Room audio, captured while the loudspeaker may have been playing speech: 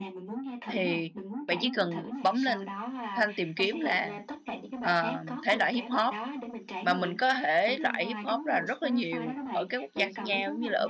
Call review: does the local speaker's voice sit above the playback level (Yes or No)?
Yes